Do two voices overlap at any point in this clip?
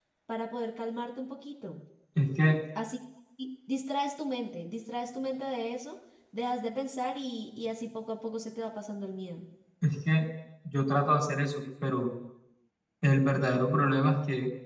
No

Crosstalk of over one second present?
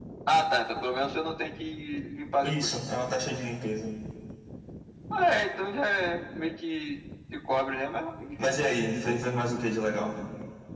No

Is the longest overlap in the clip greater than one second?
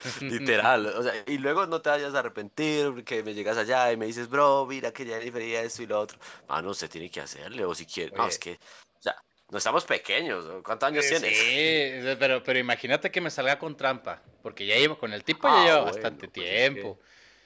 Yes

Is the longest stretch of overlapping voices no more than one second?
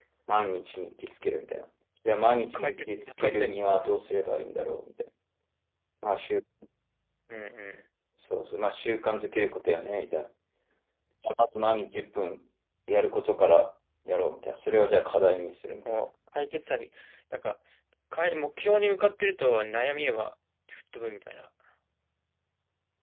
No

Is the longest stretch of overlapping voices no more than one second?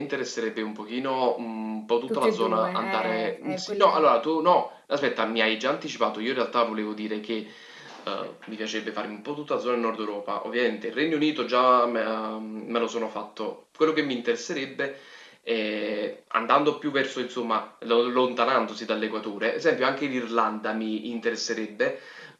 No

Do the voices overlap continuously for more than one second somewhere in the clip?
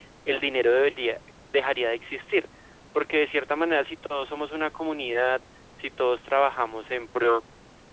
No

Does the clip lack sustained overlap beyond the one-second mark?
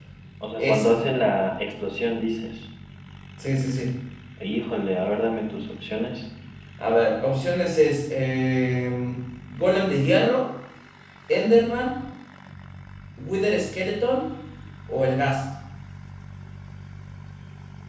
Yes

